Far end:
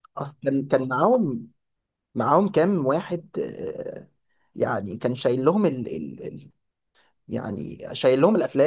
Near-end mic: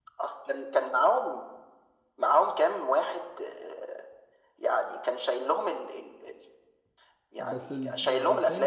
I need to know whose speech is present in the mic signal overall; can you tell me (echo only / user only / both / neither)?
both